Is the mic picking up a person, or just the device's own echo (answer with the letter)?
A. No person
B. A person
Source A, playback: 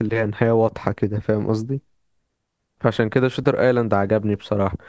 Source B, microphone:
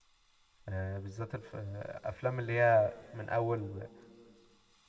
B